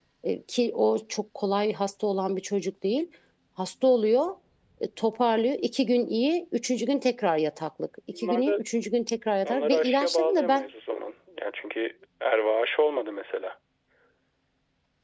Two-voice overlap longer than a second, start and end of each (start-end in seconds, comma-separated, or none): 9.4-10.7